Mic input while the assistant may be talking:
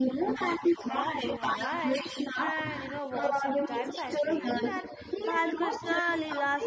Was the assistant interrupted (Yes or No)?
Yes